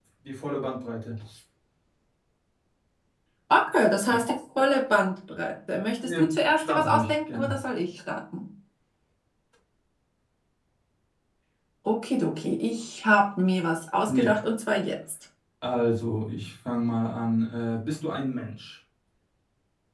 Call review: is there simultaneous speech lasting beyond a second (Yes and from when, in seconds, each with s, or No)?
Yes, from 6.0 s